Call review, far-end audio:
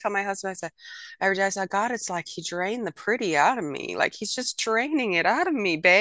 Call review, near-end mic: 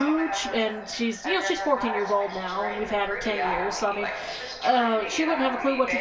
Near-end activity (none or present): present